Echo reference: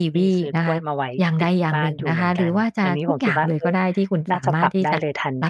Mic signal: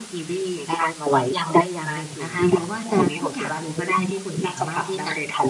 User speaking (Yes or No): No